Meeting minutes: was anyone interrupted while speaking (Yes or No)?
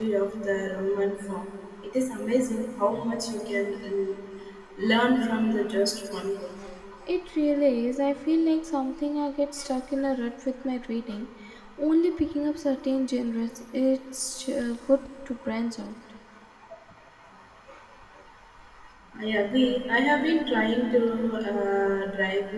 No